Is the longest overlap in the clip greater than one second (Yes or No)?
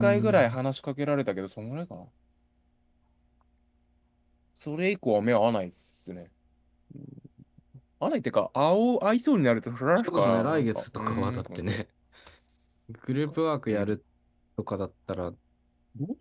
Yes